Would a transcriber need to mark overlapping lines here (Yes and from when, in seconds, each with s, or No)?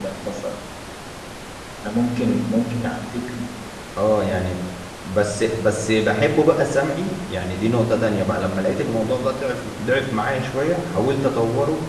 No